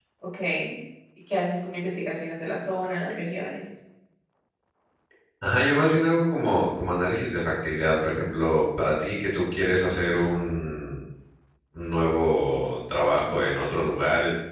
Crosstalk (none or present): none